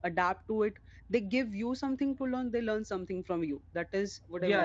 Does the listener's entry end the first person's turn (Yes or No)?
Yes